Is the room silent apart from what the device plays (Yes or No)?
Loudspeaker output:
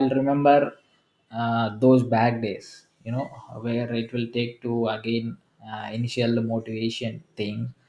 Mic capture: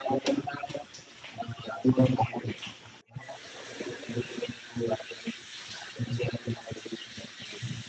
Yes